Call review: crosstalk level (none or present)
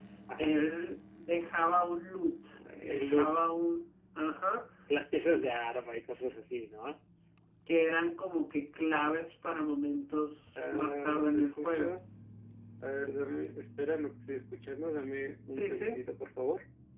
present